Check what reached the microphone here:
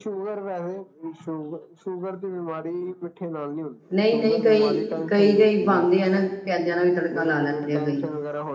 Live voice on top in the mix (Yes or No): Yes